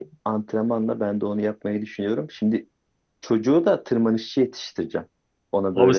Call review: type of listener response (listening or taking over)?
taking over